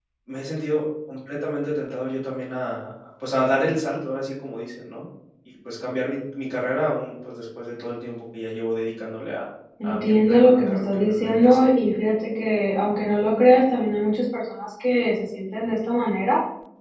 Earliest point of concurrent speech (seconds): 9.8 s

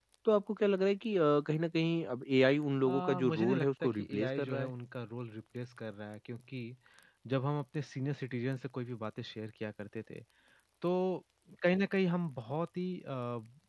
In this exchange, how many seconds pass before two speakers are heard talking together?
2.9 s

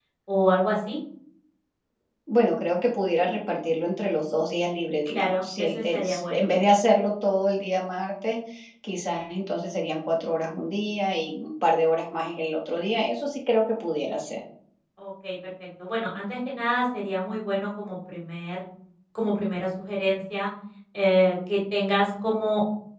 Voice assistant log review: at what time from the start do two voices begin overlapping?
5.1 s

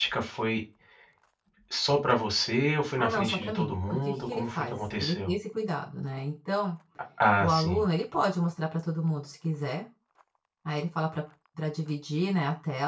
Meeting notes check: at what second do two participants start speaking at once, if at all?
3.0 s

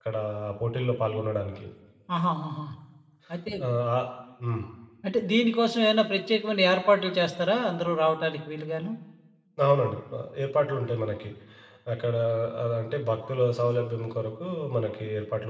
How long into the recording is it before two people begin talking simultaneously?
none

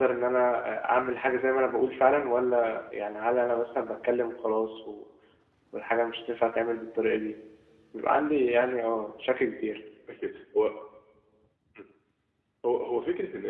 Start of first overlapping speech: none

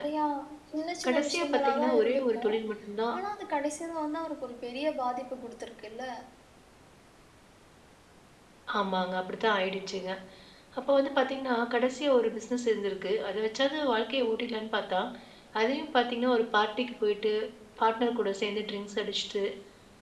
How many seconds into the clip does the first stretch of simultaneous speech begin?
1.1 s

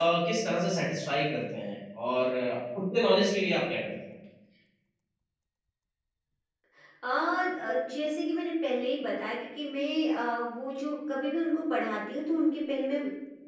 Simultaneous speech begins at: none

